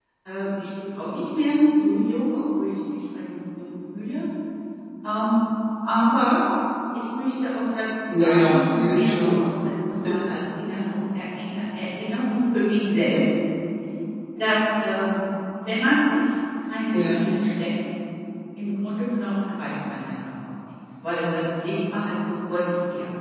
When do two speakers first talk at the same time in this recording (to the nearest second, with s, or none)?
8 s